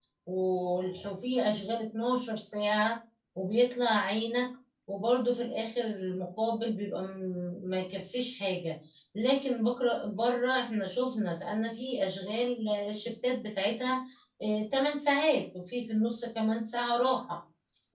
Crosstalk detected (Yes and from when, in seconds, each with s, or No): No